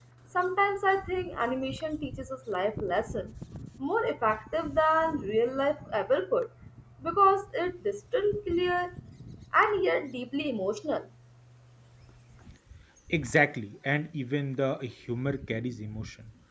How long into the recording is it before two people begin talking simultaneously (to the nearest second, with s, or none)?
none